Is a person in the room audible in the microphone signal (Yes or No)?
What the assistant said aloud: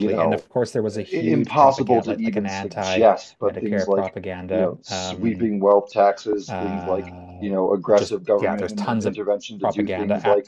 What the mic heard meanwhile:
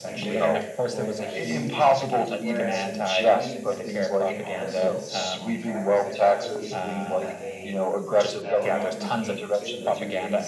Yes